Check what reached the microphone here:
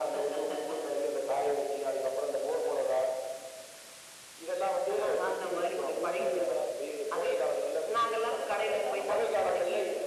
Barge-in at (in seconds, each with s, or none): 5.1 s